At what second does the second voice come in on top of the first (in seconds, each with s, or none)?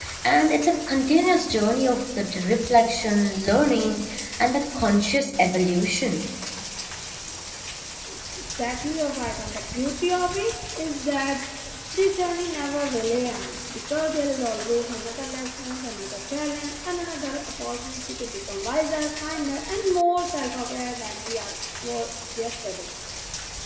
none